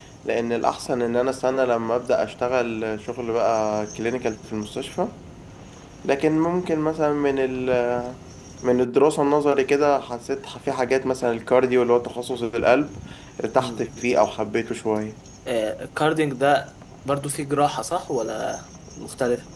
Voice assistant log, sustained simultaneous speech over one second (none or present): none